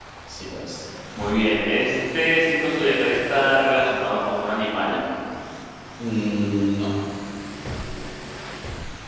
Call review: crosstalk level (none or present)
none